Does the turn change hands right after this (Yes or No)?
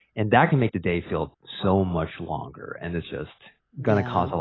No